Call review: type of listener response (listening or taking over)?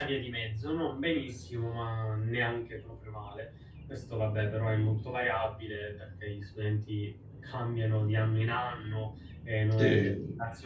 listening